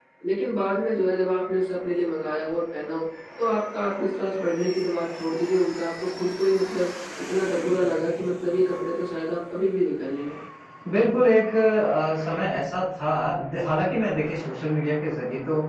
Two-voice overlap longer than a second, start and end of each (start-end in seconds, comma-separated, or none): none